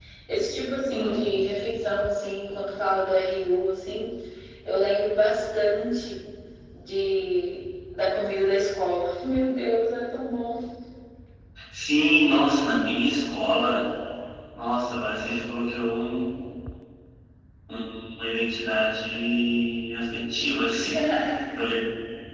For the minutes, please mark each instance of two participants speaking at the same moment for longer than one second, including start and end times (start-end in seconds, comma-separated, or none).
none